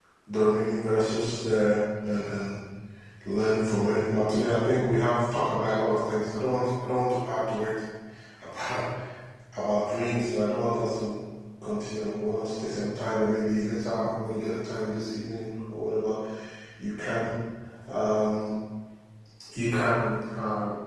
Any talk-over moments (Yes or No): No